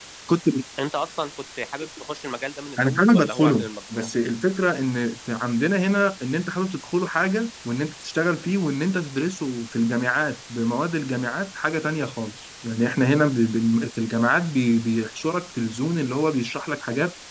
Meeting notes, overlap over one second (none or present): present